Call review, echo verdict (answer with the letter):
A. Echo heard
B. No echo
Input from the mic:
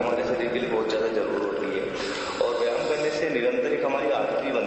A